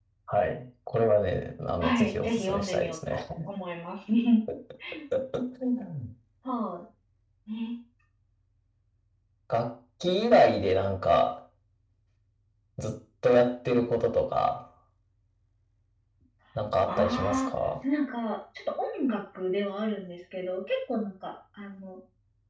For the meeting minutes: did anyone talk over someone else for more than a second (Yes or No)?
Yes